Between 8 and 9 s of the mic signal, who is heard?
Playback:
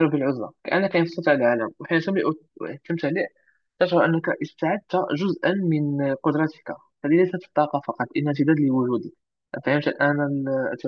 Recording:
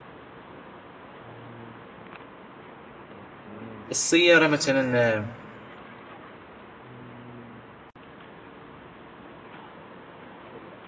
neither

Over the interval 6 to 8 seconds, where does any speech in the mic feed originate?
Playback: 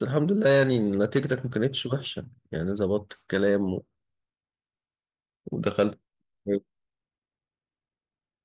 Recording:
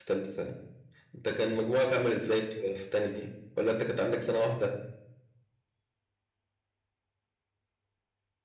neither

